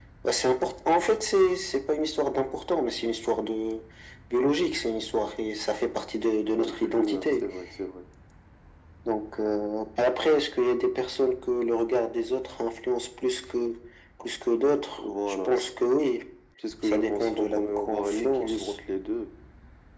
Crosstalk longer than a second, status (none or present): present